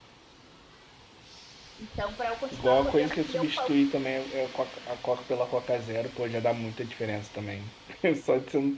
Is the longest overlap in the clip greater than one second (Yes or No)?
Yes